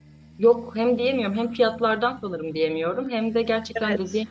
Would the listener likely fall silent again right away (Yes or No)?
Yes